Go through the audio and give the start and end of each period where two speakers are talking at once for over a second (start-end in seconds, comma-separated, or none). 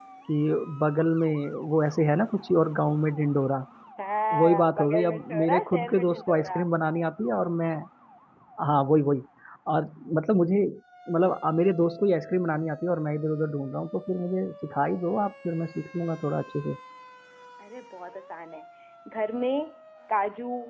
4.4-6.6